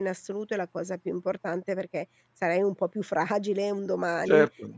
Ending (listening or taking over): taking over